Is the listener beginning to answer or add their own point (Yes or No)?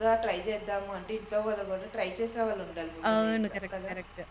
Yes